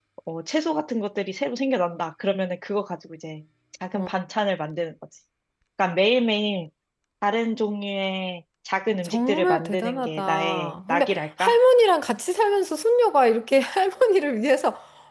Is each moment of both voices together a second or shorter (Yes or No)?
No